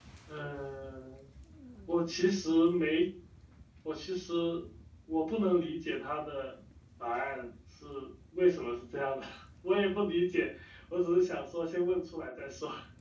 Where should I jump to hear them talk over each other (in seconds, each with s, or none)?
none